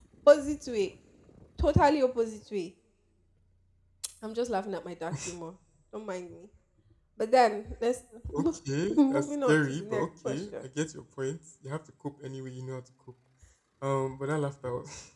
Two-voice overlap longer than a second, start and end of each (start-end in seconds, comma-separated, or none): 8.9-10.4